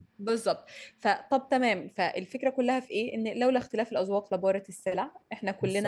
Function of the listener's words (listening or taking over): taking over